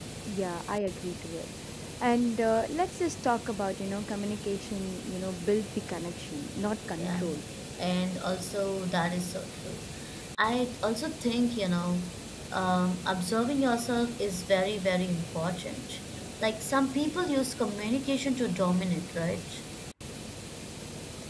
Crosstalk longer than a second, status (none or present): none